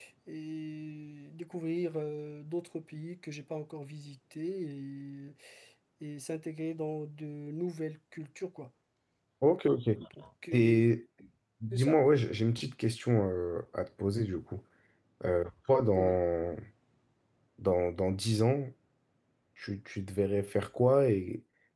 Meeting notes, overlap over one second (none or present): none